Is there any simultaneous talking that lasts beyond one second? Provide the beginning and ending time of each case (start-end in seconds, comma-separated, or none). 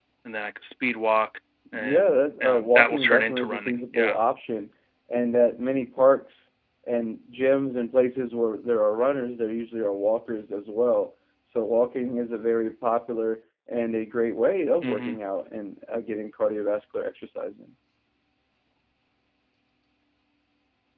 1.7-4.2